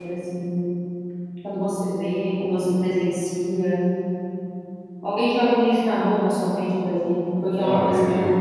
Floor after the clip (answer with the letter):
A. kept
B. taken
B